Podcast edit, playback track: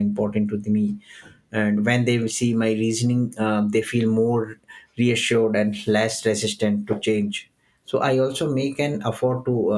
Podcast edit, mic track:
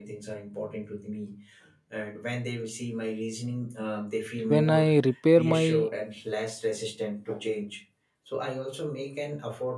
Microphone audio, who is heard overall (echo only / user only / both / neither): both